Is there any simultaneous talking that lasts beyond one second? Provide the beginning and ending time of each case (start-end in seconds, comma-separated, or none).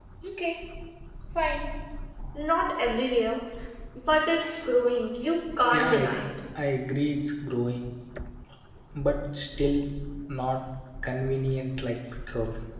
none